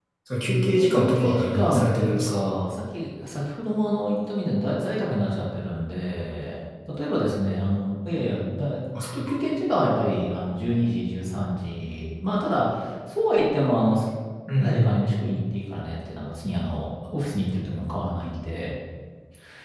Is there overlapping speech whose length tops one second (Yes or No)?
Yes